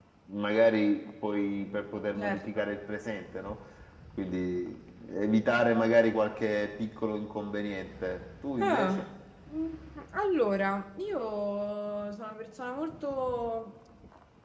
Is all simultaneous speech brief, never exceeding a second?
Yes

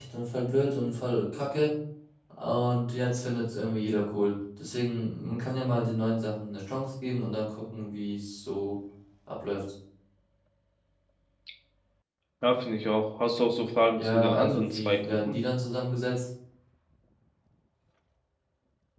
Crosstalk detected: Yes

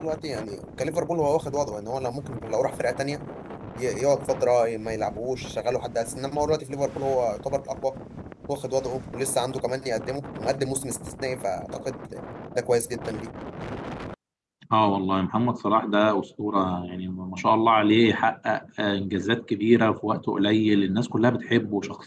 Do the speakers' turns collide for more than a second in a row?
No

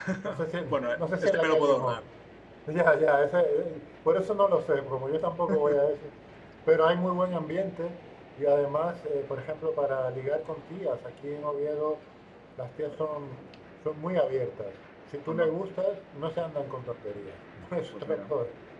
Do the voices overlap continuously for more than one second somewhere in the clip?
Yes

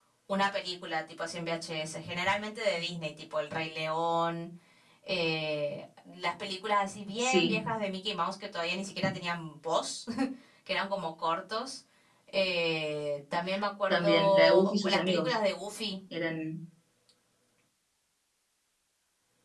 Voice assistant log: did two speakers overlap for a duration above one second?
Yes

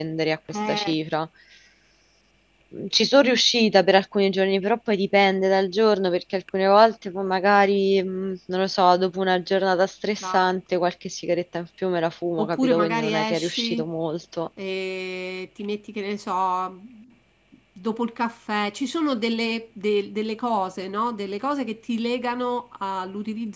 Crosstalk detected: Yes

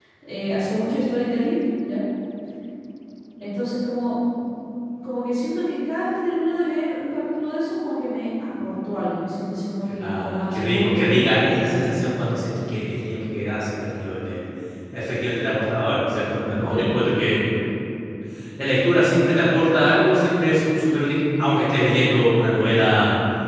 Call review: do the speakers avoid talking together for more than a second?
No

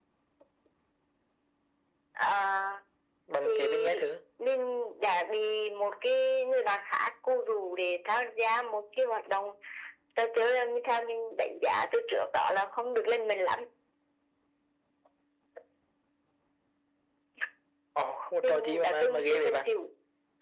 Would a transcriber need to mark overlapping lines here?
Yes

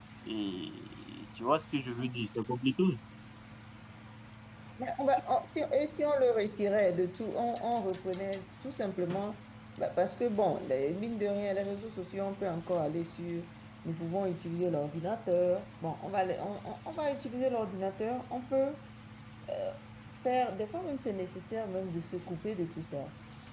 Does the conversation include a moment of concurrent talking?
No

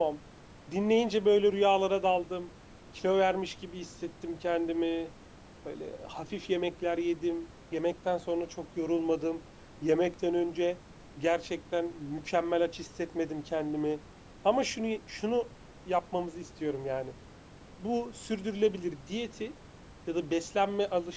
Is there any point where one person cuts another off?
No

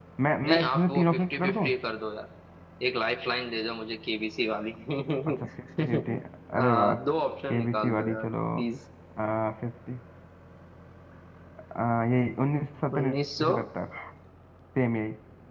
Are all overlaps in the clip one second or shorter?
No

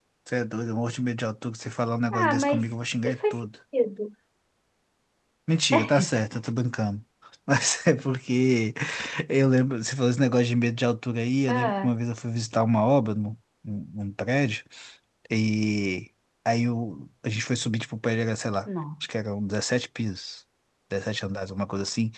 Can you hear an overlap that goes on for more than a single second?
No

